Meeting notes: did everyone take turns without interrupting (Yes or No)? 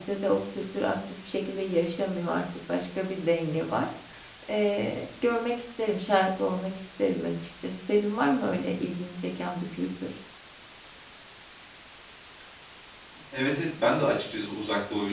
Yes